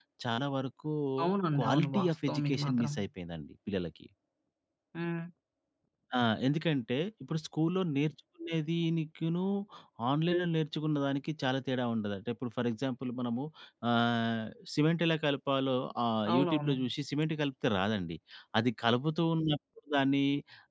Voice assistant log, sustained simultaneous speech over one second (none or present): present